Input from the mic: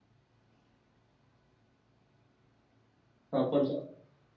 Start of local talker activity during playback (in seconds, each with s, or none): 3.3 s